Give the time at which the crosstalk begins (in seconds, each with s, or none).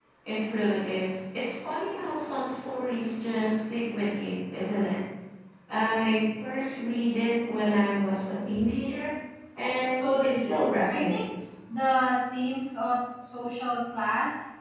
10.0 s